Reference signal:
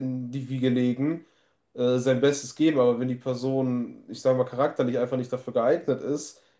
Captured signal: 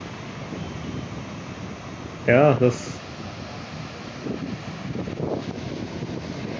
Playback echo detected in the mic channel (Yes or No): No